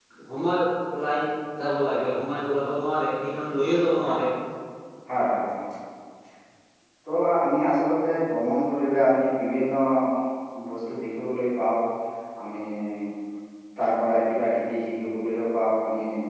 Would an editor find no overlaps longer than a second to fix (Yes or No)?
Yes